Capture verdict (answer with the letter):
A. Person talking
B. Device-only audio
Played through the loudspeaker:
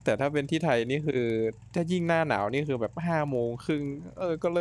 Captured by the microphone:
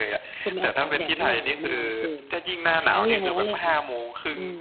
A